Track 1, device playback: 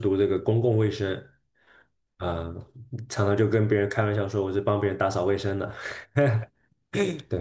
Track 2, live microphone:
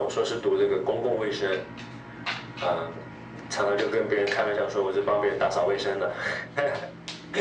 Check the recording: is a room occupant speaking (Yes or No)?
No